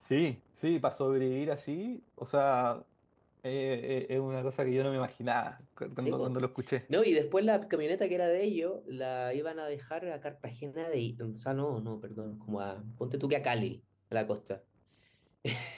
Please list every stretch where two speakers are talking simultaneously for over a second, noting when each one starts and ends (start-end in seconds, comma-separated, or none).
none